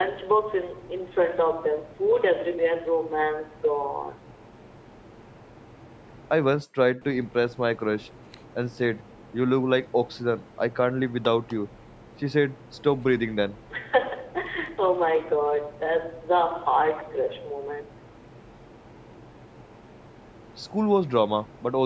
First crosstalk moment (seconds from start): none

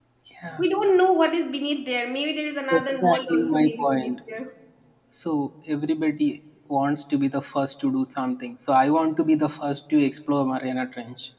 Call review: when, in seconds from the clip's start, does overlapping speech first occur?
2.7 s

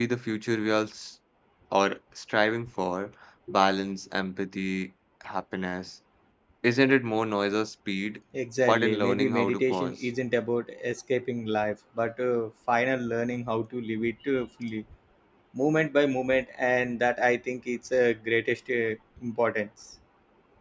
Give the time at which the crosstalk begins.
8.7 s

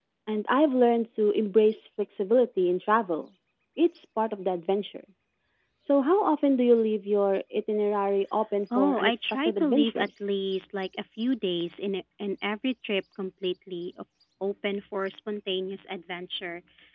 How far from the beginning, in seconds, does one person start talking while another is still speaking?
8.7 s

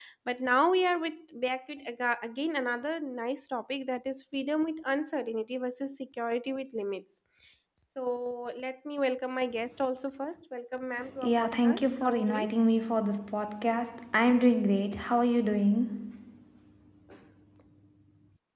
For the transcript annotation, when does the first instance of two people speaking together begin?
11.0 s

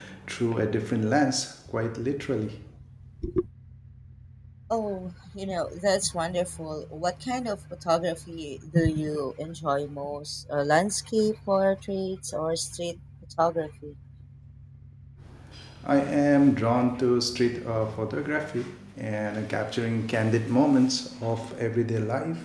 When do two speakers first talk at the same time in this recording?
none

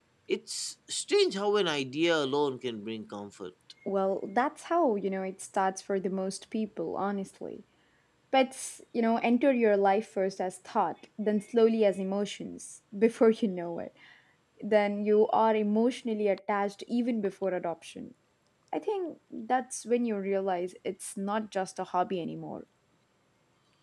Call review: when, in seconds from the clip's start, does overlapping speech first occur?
none

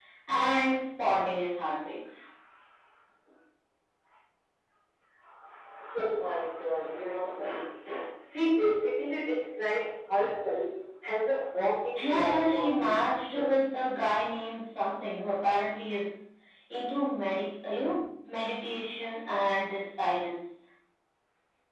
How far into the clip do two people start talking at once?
12.0 s

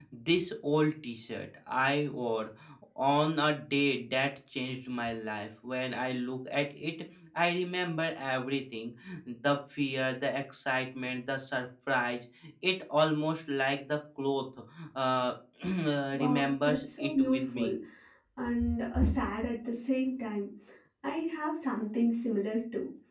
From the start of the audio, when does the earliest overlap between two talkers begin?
16.2 s

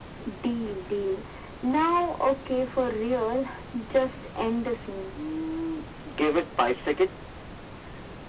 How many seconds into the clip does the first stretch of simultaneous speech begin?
none

